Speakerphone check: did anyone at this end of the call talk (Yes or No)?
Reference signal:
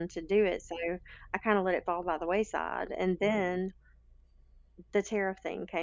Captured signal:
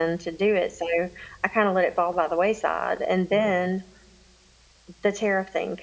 No